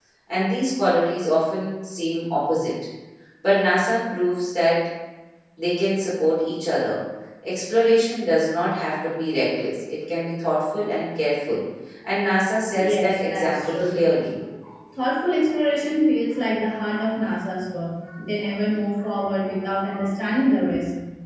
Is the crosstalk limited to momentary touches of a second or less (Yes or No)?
No